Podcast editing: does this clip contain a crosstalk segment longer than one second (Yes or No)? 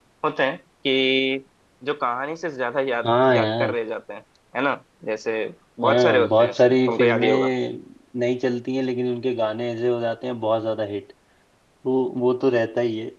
Yes